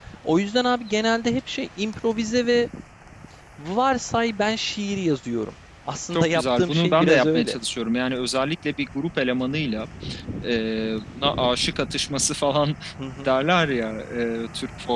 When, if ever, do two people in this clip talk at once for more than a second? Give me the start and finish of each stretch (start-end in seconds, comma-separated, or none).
6.1-7.5